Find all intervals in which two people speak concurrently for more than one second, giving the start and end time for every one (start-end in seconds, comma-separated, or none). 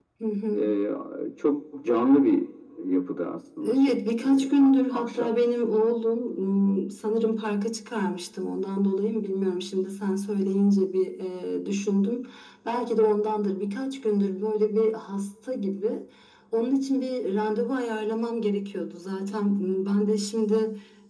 3.6-5.3